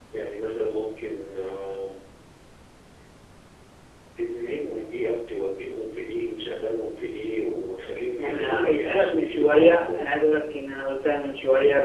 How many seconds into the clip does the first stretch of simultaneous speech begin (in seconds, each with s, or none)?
8.2 s